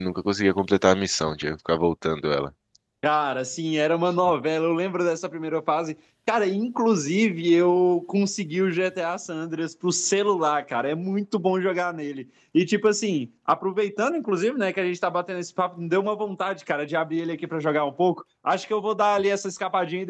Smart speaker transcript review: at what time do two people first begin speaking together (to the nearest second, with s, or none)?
none